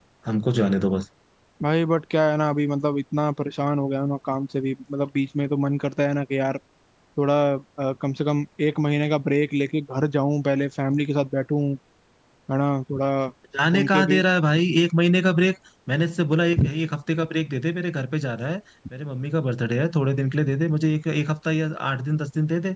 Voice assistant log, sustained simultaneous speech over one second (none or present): none